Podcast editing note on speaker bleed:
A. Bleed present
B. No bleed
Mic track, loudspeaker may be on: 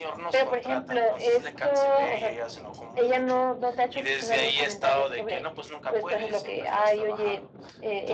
A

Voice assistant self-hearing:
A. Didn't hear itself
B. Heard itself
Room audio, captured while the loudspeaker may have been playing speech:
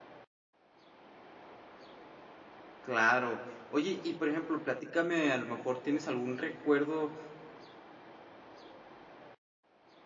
A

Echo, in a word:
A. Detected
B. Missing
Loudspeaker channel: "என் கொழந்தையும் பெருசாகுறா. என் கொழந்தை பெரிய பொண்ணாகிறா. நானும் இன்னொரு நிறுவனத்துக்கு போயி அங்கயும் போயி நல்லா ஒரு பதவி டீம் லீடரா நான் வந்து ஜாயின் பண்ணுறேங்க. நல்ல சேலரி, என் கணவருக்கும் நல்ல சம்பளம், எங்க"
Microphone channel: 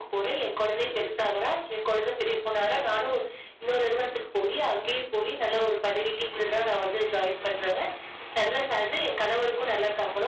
A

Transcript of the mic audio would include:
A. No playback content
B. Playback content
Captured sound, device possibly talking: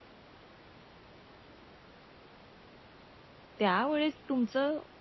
A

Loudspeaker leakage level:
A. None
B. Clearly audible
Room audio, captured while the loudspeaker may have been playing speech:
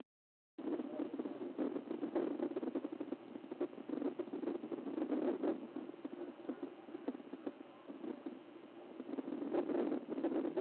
A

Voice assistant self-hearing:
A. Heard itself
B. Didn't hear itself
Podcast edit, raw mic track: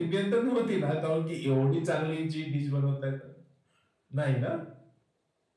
A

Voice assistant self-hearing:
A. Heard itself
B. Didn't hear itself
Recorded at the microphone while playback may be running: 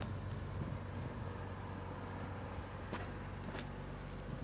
B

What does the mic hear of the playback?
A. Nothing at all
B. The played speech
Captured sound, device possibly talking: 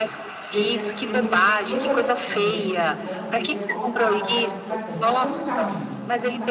B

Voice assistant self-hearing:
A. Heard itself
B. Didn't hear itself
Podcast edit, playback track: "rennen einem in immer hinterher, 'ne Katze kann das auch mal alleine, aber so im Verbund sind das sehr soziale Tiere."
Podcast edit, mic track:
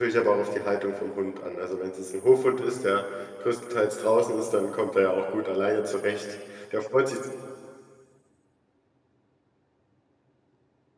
B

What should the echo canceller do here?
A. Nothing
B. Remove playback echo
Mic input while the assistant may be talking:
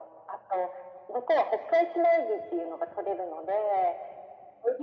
B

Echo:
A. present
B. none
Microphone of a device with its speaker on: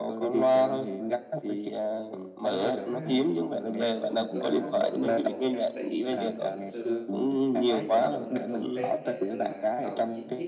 A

